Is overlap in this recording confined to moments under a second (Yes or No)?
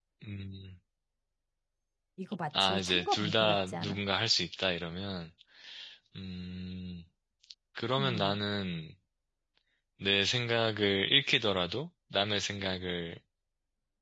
No